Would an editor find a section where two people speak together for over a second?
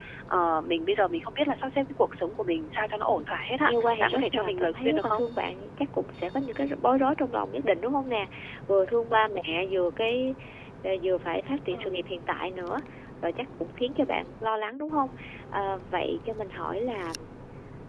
Yes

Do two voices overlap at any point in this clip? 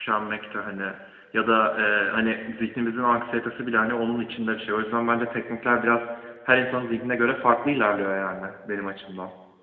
No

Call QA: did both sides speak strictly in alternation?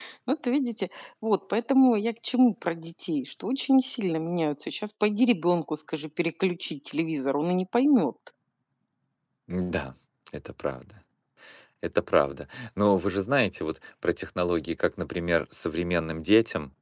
Yes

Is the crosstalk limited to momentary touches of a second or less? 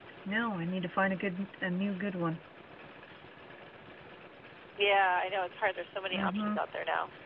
Yes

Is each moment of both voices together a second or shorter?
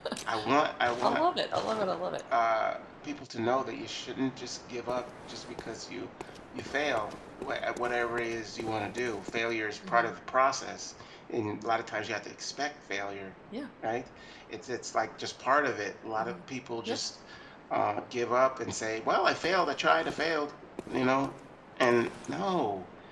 Yes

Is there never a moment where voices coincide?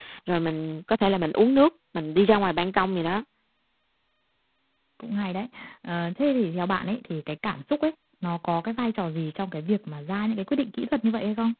Yes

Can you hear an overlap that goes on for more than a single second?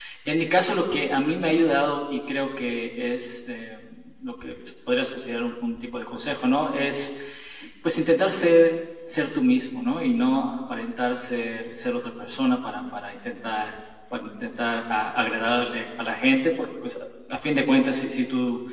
No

